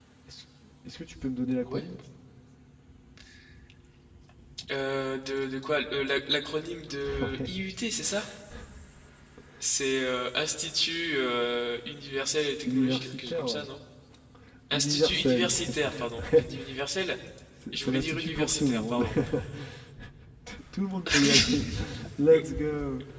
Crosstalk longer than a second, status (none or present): present